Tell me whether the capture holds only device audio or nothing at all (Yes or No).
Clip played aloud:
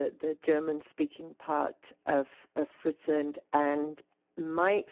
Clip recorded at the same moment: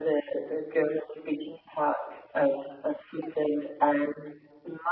Yes